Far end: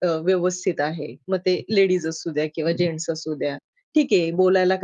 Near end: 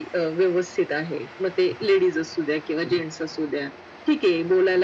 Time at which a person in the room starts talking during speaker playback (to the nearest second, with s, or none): none